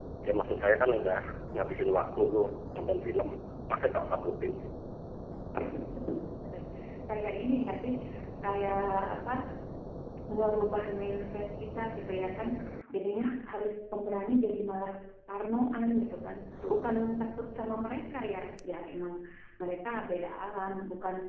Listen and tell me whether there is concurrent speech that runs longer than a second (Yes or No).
No